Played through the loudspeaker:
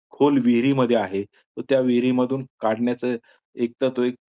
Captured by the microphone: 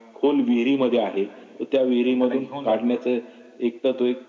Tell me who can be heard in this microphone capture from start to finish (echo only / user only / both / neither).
both